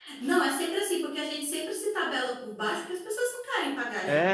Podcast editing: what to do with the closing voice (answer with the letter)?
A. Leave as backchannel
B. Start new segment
B